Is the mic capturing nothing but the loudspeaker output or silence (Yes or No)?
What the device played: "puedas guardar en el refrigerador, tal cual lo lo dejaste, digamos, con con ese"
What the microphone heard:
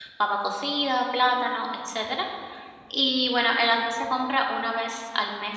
No